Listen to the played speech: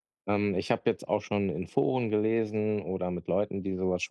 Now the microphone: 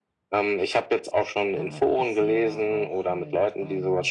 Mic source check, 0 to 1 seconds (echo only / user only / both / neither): echo only